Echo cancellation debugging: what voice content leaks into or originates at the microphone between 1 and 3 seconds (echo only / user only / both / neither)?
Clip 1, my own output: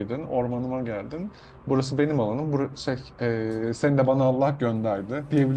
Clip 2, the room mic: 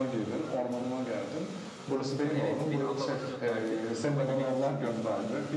both